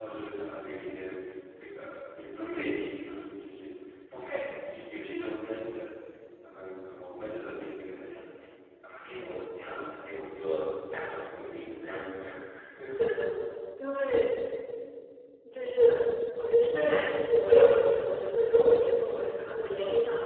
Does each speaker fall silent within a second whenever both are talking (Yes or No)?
Yes